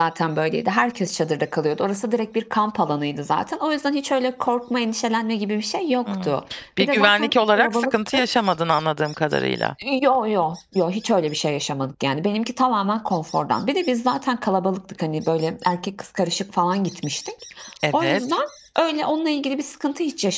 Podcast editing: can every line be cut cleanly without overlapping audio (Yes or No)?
No